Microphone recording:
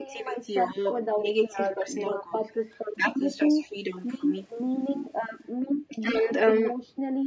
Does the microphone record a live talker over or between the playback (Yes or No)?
No